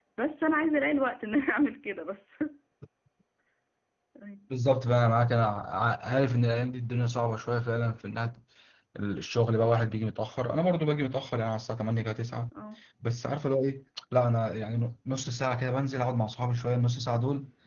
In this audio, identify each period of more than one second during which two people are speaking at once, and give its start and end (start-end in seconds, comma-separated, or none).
none